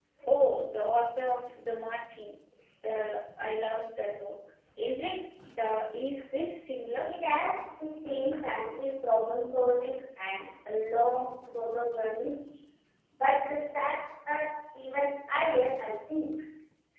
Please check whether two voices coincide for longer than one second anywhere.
No

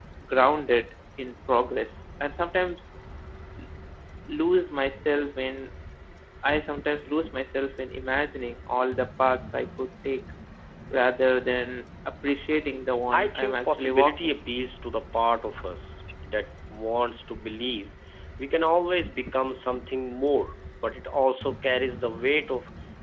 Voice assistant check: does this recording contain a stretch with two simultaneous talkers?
Yes, from 13.1 s

